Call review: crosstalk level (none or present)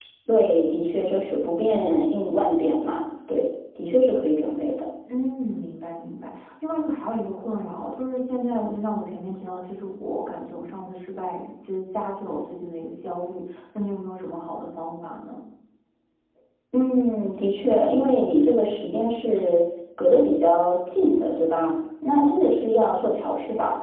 none